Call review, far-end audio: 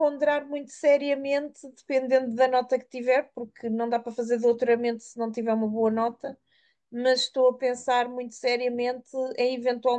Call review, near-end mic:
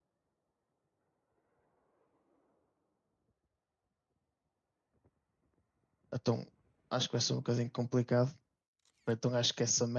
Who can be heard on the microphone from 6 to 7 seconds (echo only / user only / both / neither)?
user only